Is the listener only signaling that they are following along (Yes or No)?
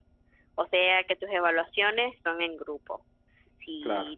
Yes